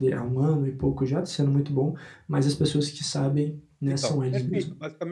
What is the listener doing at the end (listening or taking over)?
taking over